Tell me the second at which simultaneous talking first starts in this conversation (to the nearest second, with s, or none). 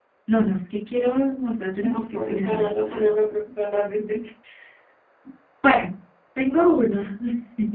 2 s